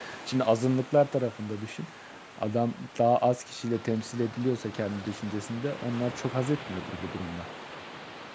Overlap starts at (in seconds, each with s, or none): none